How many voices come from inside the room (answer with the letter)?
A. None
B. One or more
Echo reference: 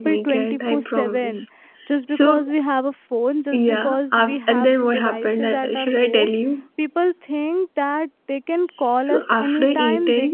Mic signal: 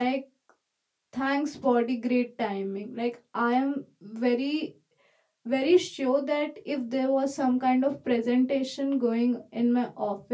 B